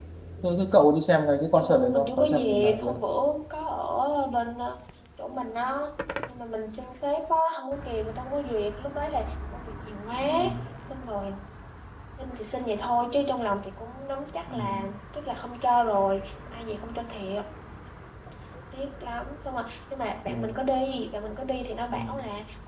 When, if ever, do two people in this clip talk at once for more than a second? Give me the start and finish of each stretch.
1.6-3.0

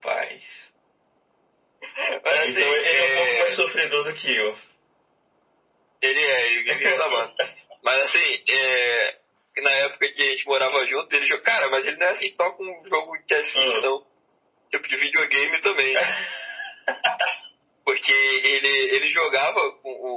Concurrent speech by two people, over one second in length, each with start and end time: 2.3-3.5

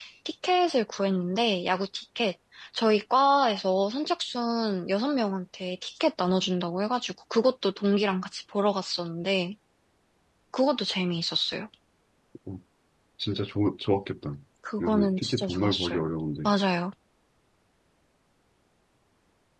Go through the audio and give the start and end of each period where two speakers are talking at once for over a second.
14.8-16.0

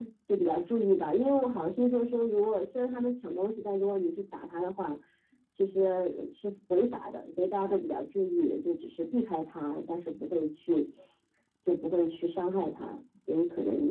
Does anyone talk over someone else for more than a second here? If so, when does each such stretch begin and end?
none

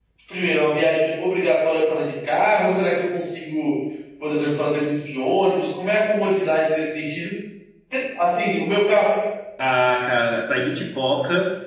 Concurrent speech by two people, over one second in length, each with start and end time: none

